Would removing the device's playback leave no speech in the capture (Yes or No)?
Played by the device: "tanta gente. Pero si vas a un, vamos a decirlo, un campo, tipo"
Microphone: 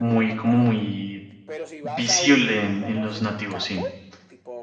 No